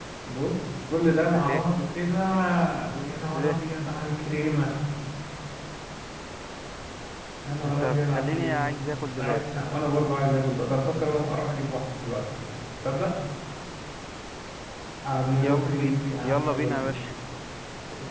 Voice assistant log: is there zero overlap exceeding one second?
No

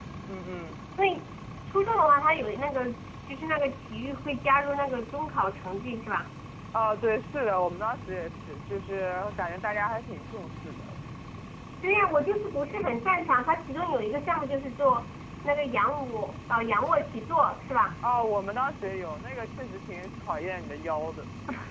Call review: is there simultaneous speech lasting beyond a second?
No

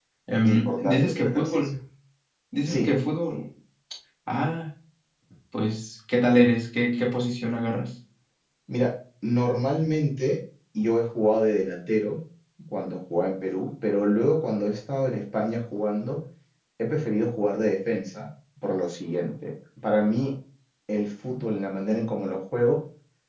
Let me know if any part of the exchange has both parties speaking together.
Yes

